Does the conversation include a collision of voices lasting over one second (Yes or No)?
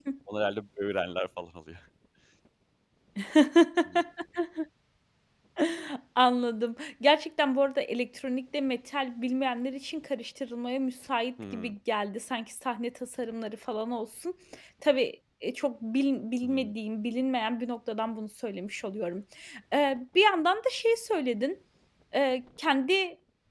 No